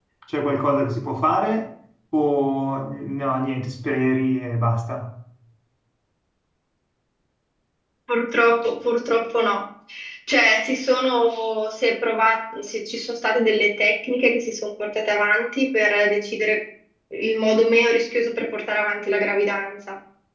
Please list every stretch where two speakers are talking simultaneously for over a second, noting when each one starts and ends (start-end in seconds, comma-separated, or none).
none